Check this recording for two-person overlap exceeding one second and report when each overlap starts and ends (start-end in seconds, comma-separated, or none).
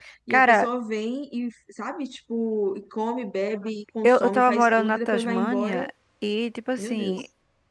4.0-5.9